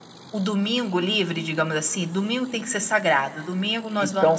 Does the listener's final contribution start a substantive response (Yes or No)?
Yes